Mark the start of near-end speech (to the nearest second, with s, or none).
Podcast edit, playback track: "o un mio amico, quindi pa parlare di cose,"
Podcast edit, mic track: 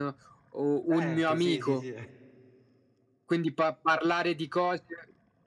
1 s